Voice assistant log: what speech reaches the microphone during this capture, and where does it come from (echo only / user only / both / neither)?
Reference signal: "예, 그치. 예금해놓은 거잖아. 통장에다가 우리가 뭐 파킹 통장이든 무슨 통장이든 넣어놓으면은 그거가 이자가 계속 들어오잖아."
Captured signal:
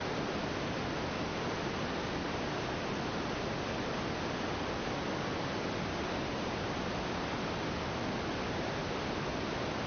neither